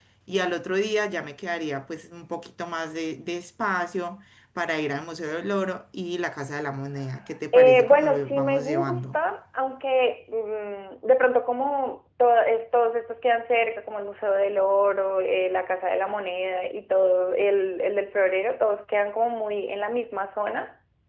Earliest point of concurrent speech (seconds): 7.5 s

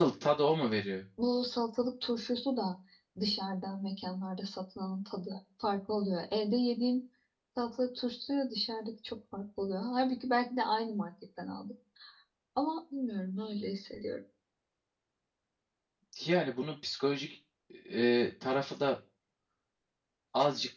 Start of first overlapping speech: none

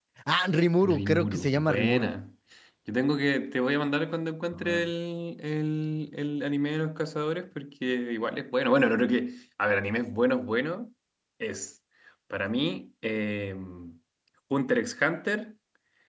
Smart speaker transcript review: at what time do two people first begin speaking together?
0.8 s

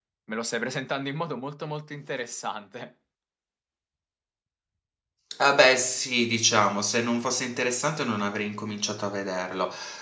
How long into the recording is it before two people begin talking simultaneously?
none

